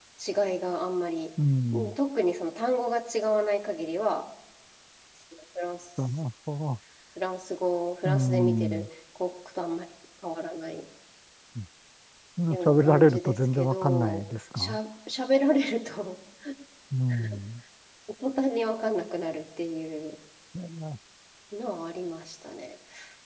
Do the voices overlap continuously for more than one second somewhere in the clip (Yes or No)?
Yes